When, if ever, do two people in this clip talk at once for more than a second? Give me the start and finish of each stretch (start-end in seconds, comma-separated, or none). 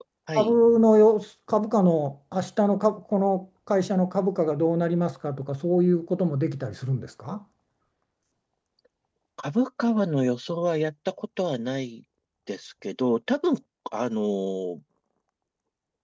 none